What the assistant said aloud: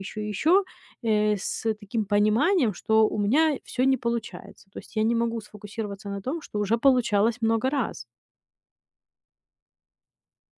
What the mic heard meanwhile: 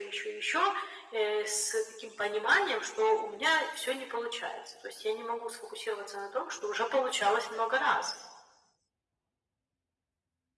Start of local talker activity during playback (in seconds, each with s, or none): none